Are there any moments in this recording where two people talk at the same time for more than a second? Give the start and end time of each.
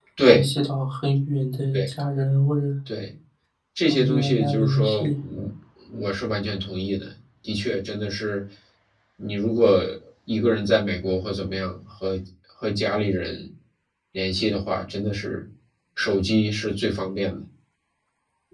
3.9-5.1

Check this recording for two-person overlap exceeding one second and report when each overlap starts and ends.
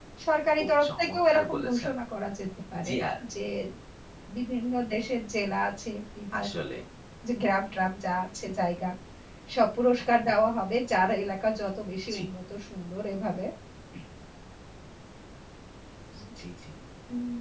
0.6-1.9

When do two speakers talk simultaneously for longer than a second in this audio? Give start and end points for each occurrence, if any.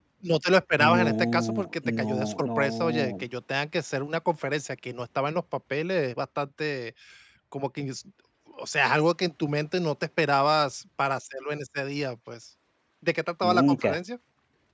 0.8-3.2

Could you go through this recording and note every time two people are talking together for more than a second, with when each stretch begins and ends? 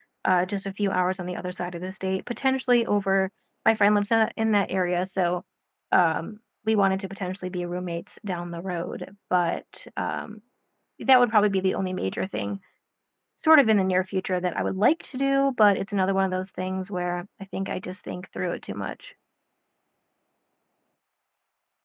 none

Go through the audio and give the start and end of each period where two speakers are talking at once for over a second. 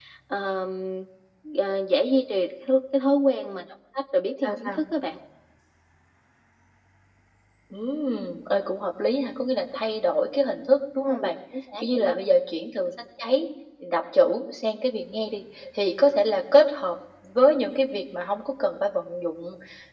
none

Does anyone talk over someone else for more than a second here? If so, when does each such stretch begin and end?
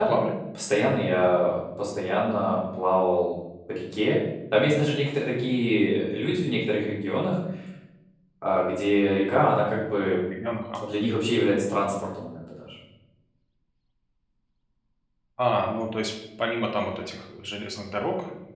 none

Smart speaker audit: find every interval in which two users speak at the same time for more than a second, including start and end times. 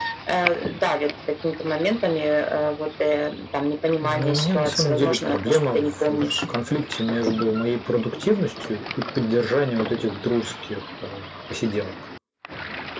4.0-6.4

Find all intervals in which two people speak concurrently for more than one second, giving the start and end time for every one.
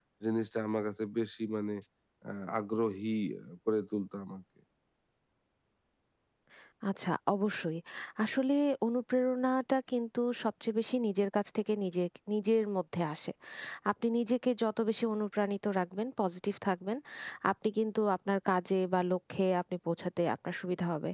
none

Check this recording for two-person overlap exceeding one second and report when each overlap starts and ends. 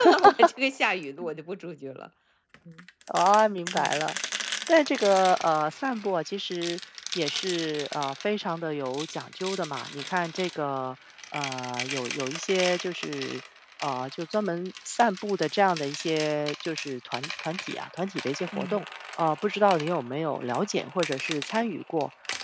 none

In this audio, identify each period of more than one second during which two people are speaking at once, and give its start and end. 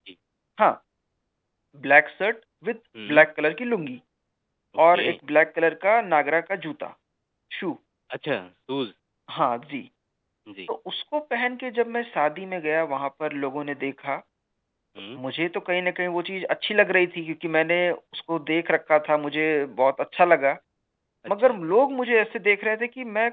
none

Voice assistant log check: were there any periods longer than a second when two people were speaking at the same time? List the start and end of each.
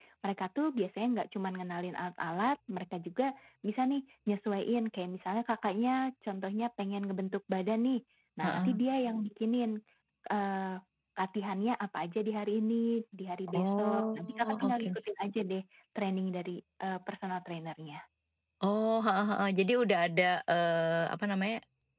13.5-14.9

